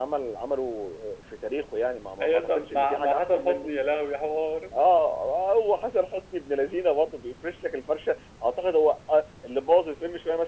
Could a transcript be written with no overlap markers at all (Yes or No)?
No